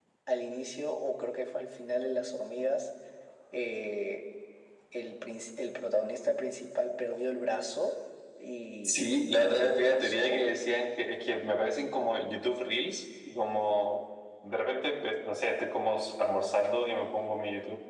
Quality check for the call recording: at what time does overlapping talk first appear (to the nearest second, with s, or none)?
9 s